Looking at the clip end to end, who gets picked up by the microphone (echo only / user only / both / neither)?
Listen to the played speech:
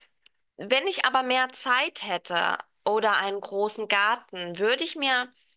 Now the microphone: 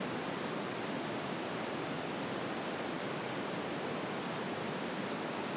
neither